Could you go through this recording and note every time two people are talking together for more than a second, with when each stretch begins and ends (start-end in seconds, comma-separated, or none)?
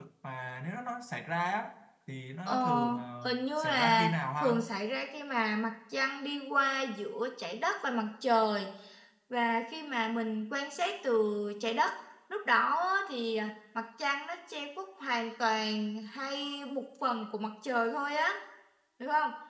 3.2-4.5